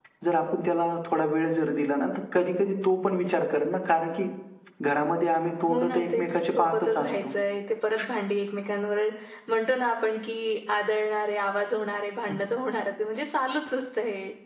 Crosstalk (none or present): present